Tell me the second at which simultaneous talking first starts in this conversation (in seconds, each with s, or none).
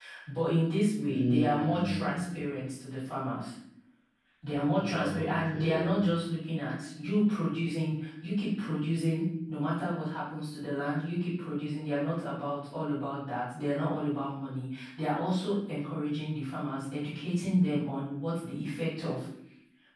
1.1 s